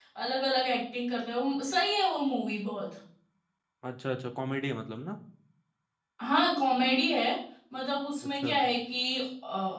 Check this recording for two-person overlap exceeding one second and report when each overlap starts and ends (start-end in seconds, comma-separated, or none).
none